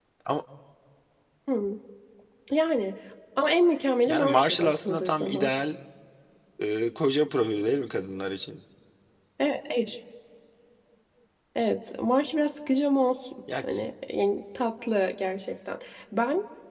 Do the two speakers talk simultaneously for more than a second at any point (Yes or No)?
Yes